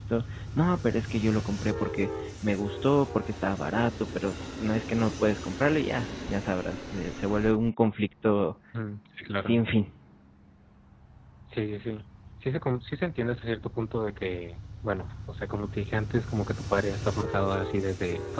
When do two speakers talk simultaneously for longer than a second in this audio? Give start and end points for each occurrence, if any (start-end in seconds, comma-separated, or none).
none